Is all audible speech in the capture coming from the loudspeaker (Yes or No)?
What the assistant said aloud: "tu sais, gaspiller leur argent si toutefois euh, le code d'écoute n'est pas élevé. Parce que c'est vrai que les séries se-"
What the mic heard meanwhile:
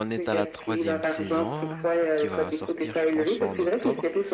No